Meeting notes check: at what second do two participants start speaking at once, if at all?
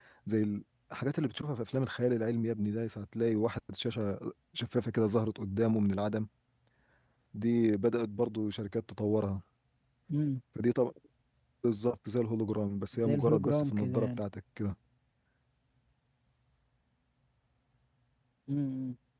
12.9 s

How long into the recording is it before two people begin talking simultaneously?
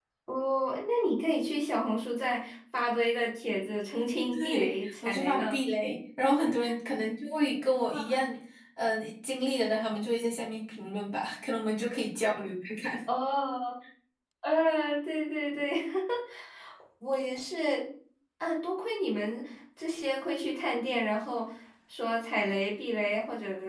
4.3 s

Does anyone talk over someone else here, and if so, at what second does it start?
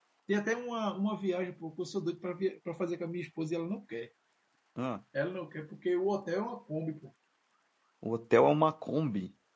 none

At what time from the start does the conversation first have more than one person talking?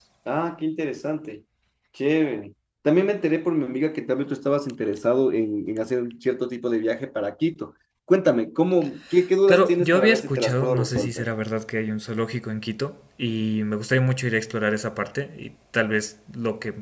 9.5 s

